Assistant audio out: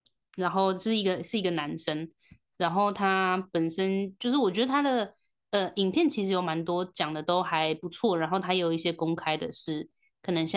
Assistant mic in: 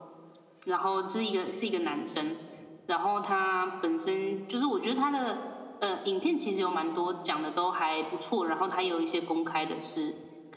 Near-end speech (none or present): none